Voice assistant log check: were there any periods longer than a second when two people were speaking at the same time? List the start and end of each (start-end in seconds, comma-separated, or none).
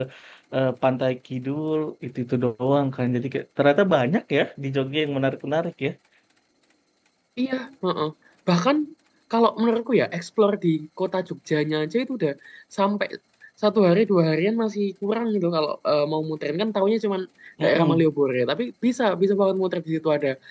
none